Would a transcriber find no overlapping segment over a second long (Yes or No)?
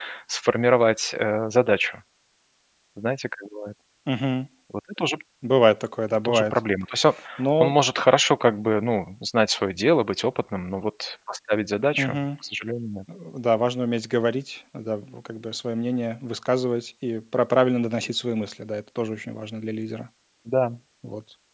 Yes